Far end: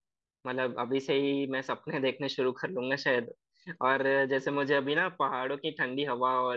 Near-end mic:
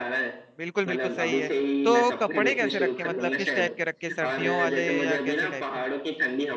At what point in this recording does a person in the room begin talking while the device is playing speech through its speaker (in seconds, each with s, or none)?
0.6 s